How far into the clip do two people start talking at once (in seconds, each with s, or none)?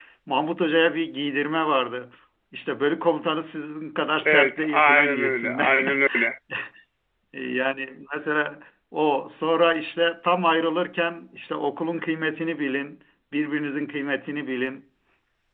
4.2 s